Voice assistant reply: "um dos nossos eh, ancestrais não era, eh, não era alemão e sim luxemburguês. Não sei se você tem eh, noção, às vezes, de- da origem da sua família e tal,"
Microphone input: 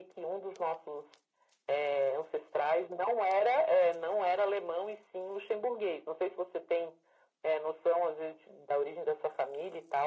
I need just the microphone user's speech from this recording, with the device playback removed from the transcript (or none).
none